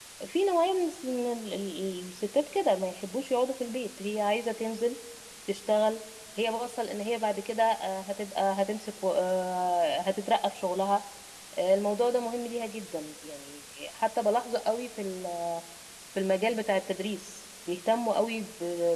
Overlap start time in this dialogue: none

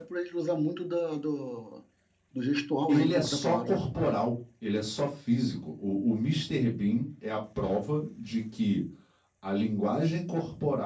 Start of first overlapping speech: 2.9 s

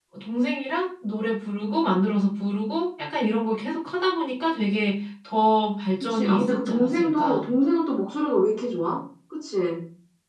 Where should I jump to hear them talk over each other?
6.0 s

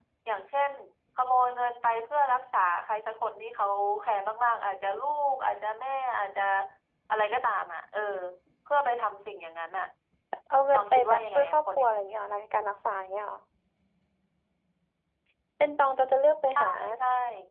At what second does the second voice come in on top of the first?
10.7 s

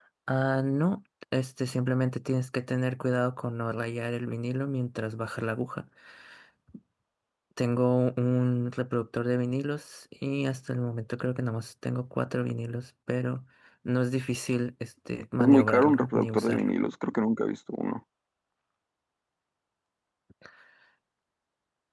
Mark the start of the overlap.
15.4 s

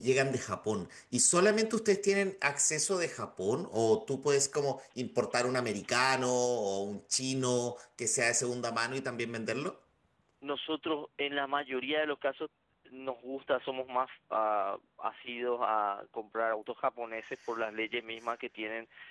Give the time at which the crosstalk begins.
none

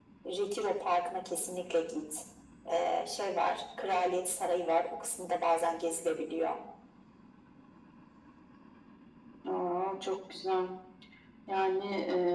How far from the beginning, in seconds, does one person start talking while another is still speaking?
none

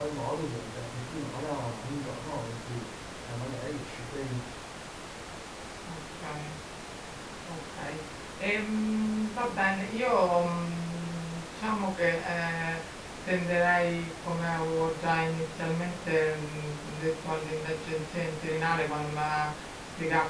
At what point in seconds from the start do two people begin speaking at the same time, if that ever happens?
none

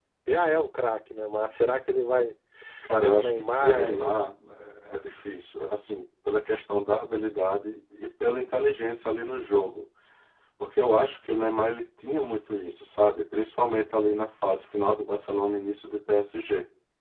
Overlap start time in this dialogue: 2.9 s

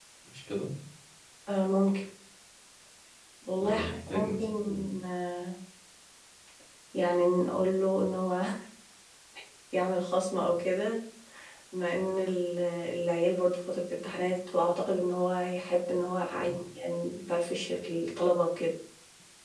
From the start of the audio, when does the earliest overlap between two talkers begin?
3.6 s

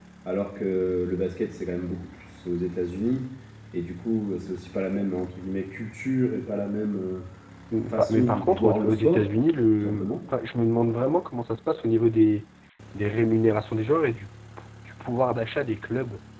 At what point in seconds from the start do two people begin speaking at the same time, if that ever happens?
7.9 s

